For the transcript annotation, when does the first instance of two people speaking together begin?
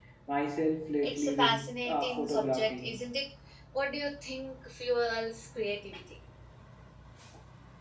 1.0 s

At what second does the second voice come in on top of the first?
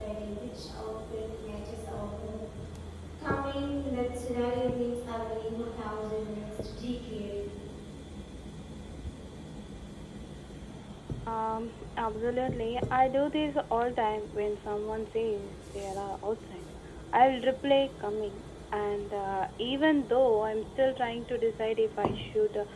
none

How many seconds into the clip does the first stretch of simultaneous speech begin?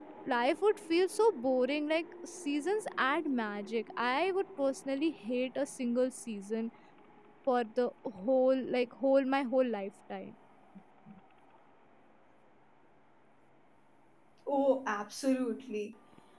none

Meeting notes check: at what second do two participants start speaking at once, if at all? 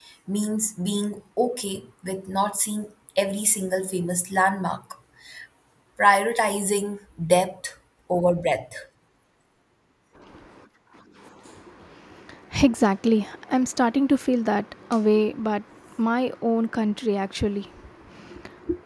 none

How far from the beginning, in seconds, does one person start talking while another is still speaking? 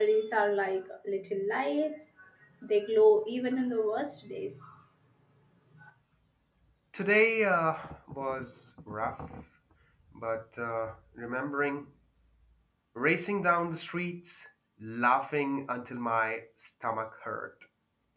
none

